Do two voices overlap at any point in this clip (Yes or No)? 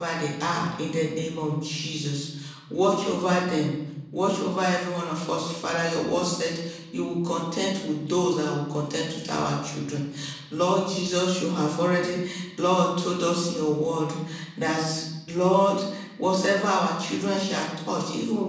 No